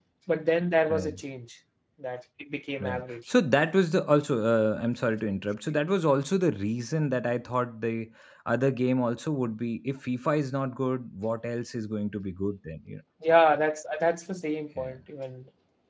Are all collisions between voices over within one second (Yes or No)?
Yes